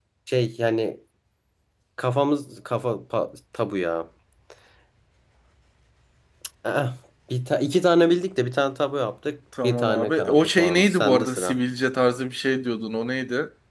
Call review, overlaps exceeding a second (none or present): present